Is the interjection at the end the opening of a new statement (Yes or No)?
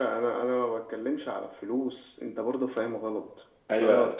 Yes